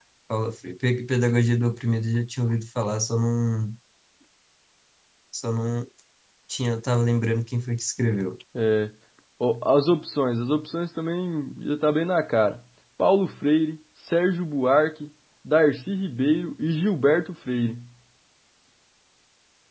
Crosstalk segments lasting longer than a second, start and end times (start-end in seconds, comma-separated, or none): none